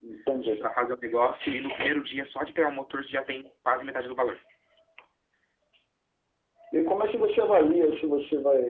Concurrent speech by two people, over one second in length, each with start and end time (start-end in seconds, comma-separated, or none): none